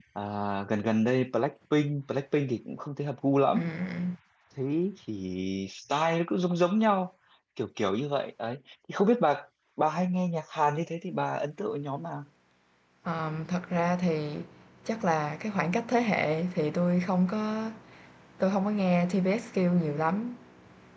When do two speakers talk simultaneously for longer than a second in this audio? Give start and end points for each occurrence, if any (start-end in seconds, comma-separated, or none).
none